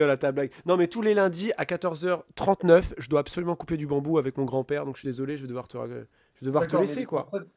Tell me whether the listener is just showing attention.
No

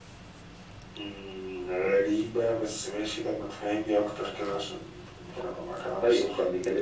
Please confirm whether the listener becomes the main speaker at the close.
Yes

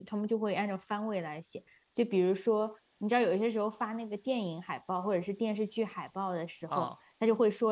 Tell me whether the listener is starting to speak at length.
No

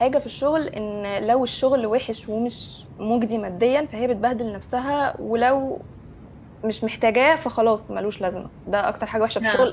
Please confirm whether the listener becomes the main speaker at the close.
No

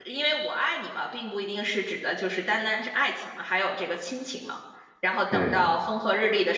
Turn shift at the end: No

